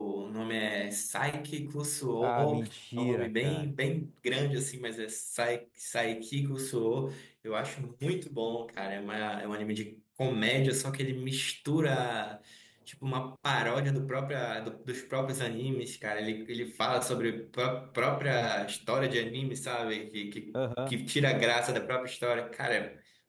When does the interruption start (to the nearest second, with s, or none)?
2 s